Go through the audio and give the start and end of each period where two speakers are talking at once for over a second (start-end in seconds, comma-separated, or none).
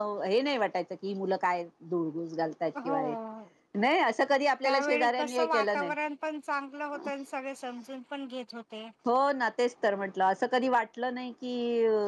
4.6-5.9